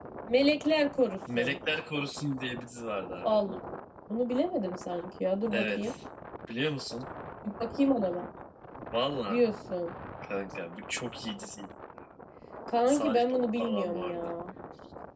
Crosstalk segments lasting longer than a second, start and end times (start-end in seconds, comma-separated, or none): 12.9-14.3